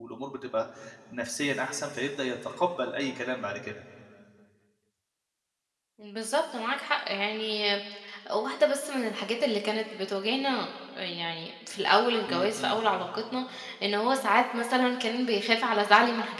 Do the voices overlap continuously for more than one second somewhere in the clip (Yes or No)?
No